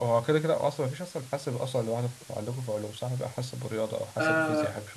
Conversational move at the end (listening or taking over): taking over